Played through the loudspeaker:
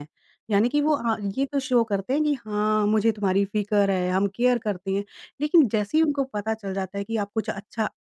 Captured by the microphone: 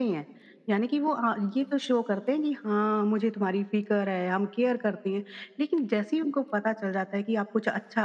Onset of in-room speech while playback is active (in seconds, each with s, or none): none